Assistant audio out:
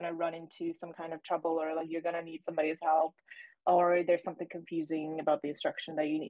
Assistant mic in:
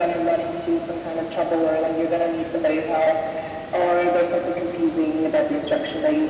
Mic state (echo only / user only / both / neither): echo only